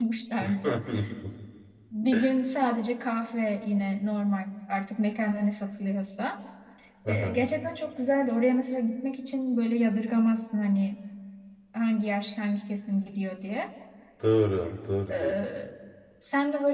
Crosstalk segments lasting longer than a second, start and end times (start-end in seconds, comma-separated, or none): none